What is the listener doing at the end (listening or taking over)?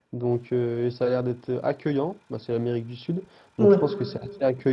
listening